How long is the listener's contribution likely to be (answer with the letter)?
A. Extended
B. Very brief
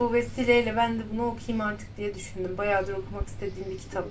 A